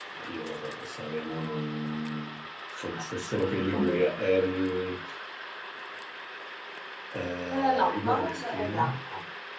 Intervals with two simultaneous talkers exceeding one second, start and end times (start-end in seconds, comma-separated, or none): 7.5-8.7